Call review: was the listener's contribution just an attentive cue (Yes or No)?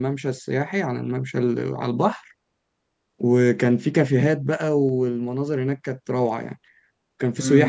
No